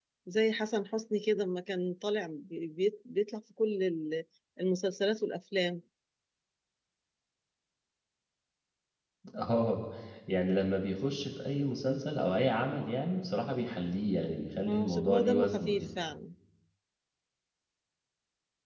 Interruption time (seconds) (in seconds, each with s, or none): 14.6 s